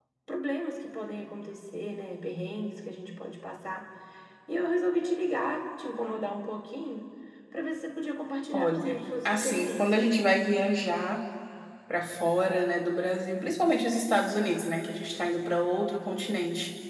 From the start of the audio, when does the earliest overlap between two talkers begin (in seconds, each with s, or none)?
8.5 s